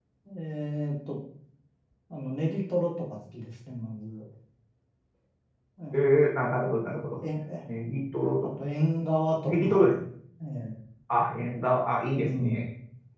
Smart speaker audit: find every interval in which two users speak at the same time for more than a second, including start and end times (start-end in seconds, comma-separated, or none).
none